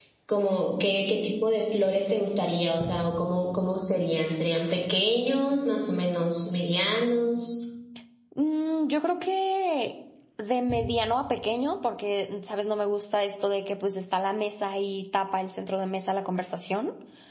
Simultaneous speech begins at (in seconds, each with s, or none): none